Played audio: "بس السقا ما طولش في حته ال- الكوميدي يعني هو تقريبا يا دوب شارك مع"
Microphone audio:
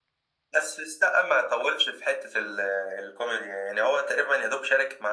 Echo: present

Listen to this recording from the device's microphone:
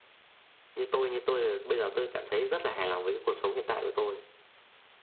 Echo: present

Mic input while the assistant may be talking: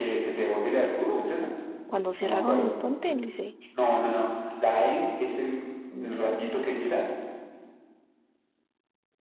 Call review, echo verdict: present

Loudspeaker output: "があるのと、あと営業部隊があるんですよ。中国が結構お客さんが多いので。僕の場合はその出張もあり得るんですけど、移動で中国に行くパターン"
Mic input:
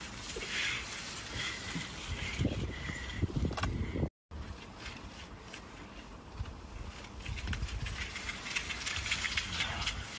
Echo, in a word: none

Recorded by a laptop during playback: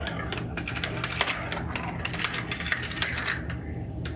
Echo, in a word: none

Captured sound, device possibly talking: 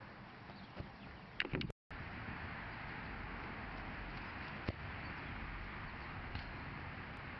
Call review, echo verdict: none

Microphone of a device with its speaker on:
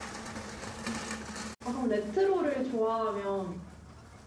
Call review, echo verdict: none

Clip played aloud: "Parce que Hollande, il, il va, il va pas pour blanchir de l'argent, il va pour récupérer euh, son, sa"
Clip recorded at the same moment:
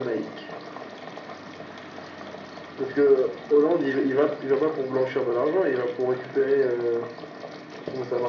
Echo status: present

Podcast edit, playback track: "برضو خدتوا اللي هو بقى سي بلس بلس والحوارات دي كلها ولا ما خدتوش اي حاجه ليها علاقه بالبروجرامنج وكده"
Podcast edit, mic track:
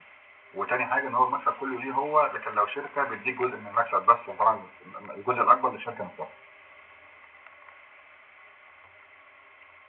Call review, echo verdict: none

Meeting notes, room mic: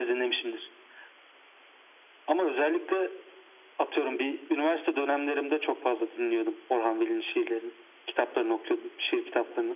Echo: present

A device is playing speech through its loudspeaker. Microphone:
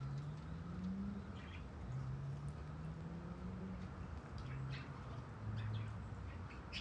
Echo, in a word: none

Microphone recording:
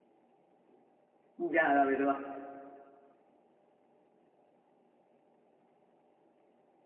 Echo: none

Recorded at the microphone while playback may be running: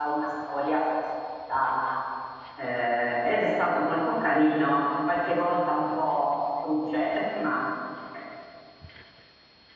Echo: none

